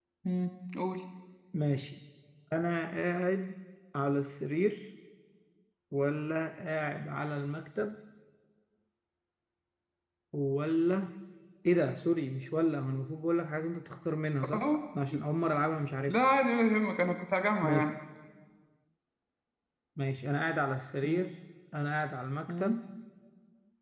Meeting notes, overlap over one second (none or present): none